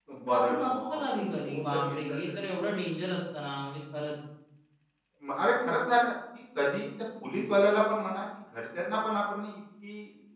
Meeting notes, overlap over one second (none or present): present